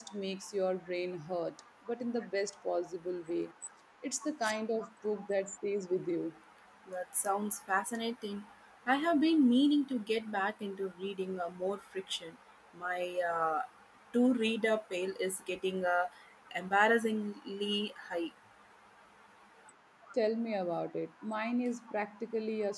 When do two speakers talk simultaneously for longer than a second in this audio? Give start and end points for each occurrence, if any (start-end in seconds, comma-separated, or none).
none